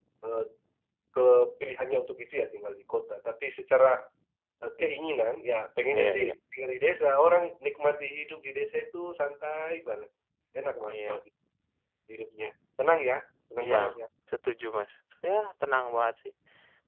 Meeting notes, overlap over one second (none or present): none